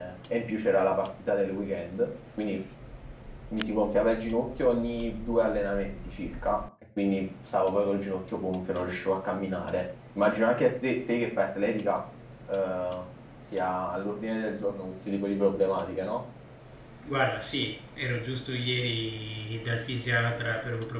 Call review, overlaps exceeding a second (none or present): none